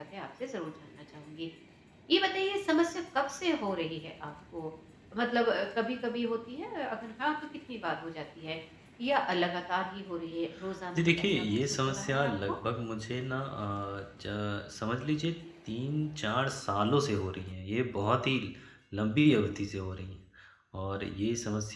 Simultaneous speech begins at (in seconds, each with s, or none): 10.9 s